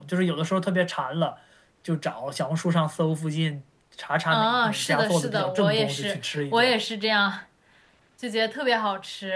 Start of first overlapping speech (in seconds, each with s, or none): 4.3 s